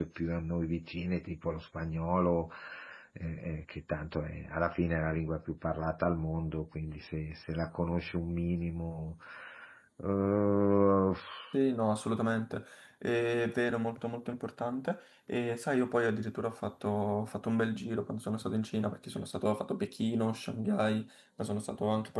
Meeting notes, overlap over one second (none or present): none